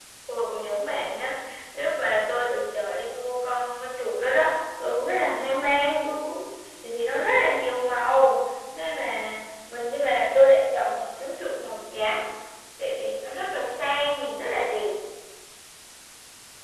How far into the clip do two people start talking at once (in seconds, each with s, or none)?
none